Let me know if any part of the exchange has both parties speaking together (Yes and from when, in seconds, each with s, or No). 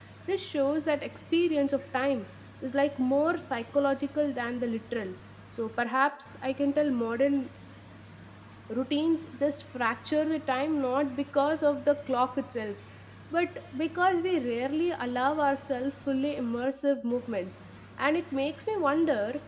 No